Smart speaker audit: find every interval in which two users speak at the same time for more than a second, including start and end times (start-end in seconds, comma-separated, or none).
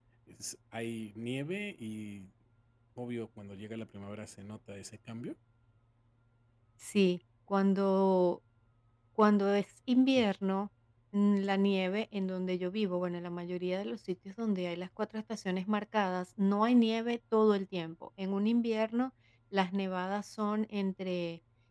none